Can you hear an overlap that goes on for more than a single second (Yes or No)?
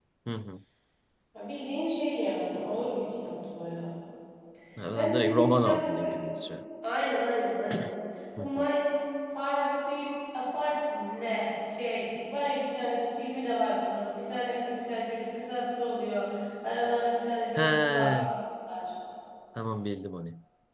Yes